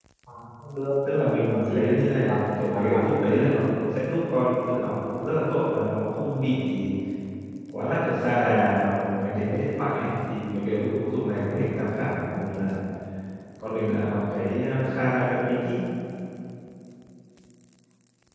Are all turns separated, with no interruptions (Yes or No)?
No